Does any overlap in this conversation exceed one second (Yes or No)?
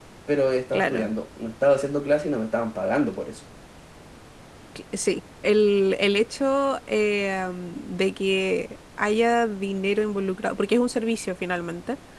No